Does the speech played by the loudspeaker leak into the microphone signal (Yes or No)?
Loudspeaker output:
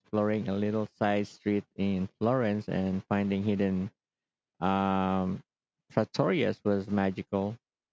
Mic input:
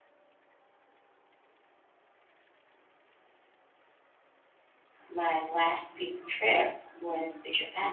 No